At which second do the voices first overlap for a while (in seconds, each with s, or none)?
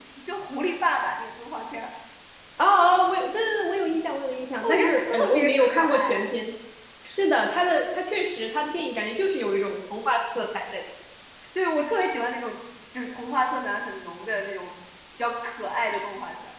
4.6 s